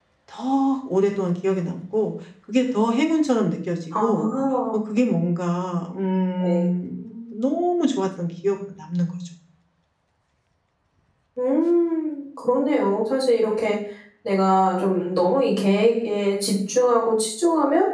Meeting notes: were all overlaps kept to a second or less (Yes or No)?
Yes